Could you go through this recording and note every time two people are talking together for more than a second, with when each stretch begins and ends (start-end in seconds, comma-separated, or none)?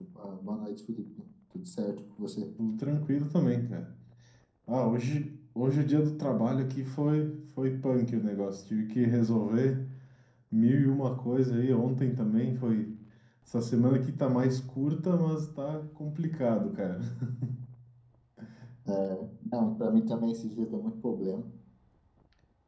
none